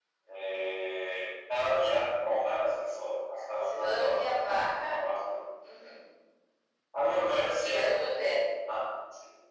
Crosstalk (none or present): present